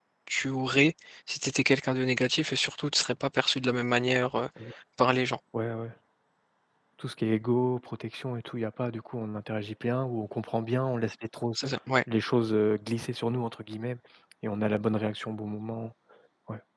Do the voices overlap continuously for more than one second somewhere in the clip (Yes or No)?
No